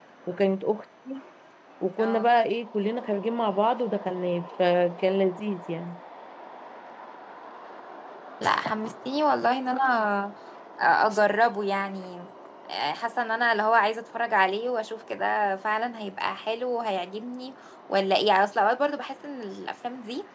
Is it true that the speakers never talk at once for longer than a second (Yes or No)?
Yes